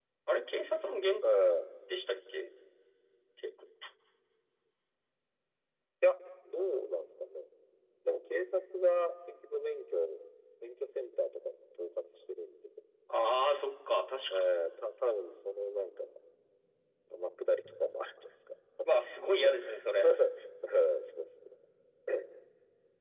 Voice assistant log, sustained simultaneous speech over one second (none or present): none